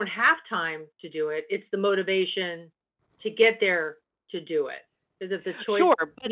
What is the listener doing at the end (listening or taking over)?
taking over